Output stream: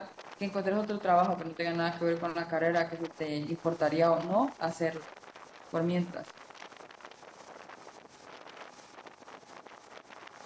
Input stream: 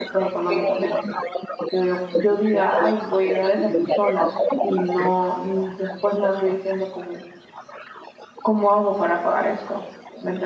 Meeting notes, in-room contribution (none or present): present